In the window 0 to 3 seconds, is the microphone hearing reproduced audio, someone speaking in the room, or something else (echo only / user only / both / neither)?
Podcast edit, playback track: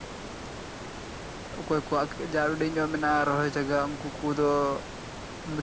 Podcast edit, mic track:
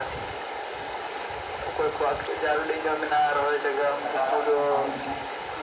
echo only